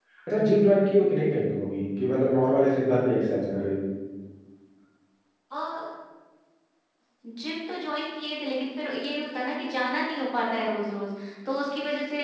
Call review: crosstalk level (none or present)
none